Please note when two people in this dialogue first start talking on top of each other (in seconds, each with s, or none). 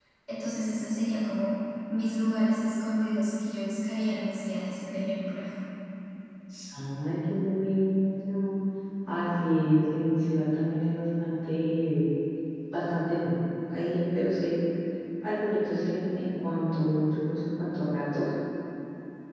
none